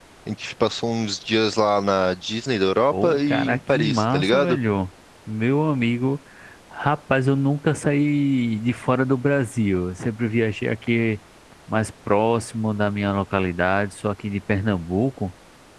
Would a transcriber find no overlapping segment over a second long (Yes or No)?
No